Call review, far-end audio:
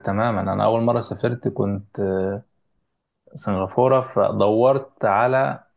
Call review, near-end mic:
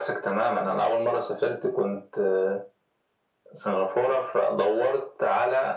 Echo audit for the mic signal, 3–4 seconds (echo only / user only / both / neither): echo only